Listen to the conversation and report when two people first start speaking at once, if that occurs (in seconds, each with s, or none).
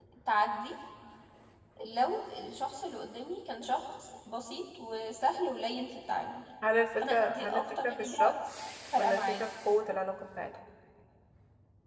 7.0 s